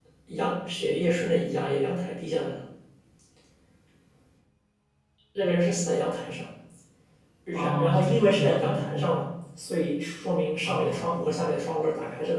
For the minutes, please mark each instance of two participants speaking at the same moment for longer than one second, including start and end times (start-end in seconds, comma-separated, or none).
7.5-9.2